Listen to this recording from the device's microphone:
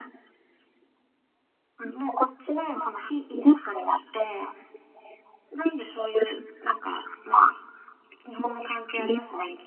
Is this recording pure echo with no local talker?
Yes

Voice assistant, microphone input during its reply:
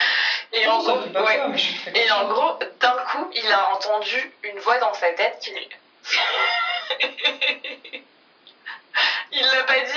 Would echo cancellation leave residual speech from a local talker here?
Yes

